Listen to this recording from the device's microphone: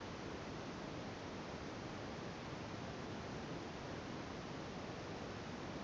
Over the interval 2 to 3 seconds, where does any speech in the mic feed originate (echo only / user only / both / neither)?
neither